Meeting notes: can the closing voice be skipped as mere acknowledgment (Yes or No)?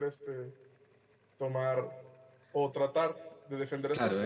No